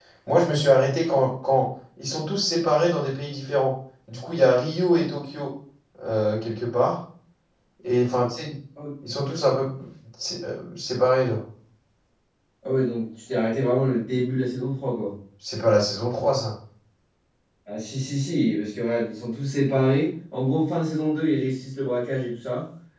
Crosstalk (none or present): none